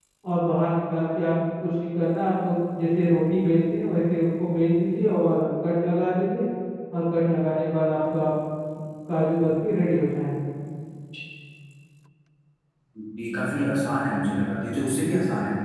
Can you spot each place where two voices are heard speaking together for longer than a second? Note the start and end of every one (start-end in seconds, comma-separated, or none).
none